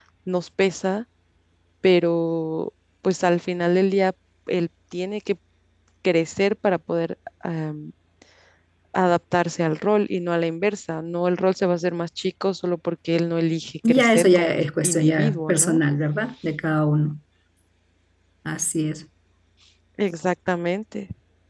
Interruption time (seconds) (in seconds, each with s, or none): 13.8 s